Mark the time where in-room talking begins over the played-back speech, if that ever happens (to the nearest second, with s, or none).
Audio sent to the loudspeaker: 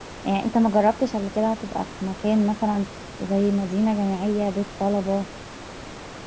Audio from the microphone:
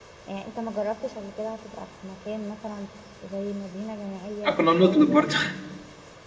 4 s